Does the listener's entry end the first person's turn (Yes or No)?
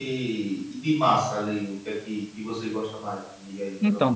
Yes